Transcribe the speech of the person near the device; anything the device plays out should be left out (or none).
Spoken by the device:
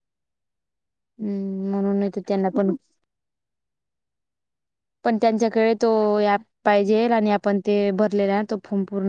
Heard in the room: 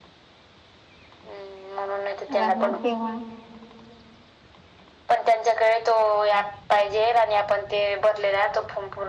राहणार तेव्हा